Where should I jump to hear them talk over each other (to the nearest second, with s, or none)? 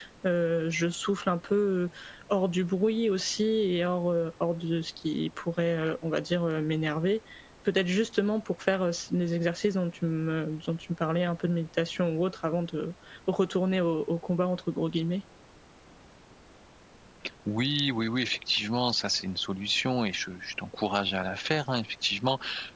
none